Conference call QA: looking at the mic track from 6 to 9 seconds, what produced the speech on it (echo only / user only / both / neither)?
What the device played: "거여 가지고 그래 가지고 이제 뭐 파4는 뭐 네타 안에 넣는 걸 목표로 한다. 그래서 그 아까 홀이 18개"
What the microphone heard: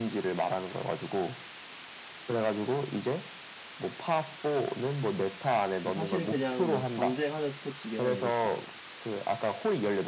both